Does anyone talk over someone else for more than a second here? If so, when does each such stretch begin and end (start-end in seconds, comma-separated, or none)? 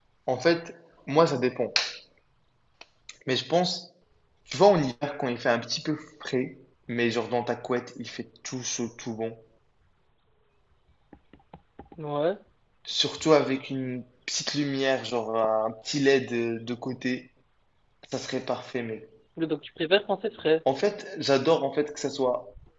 none